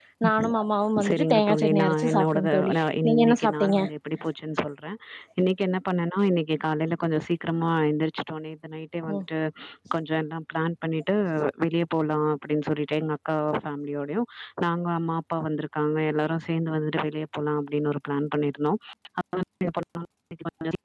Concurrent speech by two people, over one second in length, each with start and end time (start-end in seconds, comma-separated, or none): 1.0-3.8